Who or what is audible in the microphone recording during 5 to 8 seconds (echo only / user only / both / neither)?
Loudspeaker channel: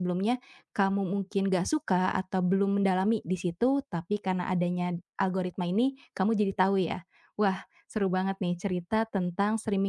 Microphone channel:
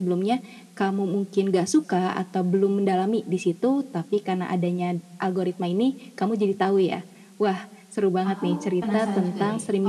echo only